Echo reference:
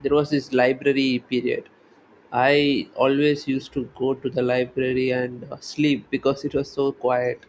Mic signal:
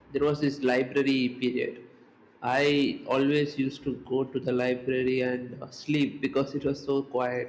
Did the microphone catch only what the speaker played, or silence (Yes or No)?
Yes